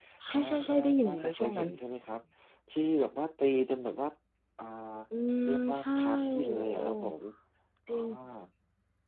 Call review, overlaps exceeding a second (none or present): present